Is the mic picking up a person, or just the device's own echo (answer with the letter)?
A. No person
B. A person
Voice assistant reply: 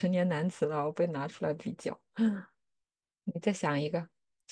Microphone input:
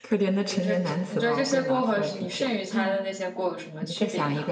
B